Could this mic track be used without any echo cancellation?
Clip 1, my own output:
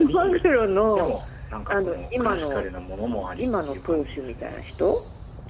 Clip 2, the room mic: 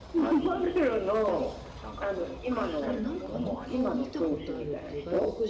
No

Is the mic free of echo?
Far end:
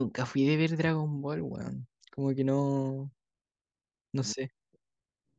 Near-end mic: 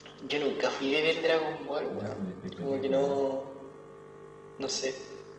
No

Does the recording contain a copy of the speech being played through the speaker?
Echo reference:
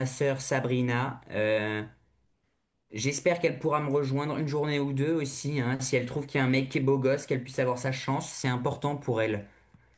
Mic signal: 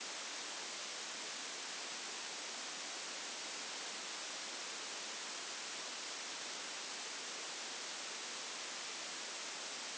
No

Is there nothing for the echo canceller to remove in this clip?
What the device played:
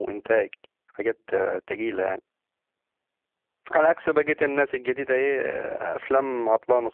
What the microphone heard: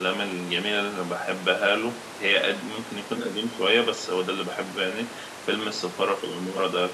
Yes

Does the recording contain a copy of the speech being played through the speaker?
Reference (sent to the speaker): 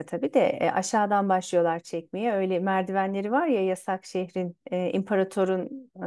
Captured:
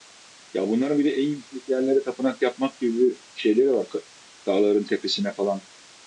No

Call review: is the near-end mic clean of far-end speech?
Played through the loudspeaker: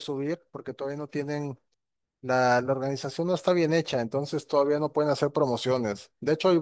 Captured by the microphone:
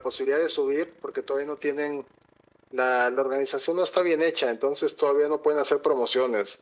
No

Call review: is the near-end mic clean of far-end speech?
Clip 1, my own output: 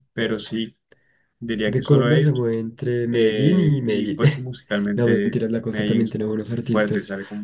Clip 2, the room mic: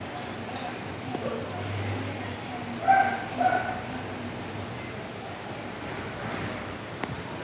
Yes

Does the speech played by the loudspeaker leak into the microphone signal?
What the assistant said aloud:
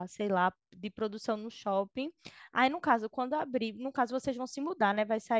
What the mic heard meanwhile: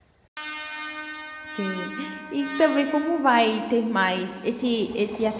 No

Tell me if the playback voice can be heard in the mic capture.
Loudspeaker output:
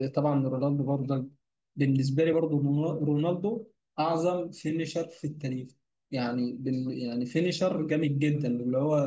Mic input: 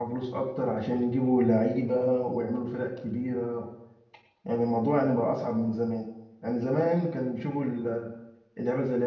No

